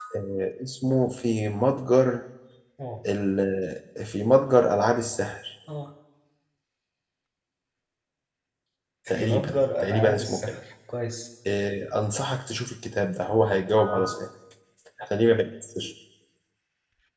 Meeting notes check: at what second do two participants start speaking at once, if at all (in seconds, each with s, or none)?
9.1 s